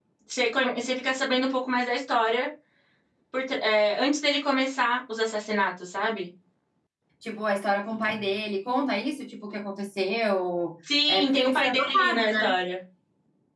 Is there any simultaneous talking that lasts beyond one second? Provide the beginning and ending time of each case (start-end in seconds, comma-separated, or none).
11.1-12.5